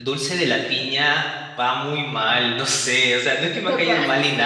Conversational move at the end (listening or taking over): listening